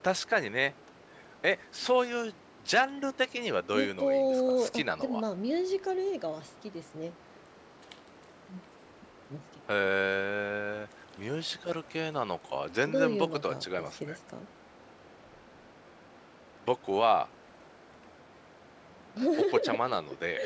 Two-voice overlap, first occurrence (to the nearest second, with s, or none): 4 s